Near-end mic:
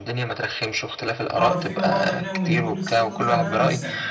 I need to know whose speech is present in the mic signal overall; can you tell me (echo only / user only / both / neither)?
both